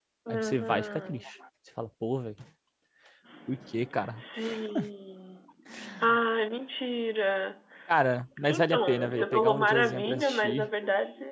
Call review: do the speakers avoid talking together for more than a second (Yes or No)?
No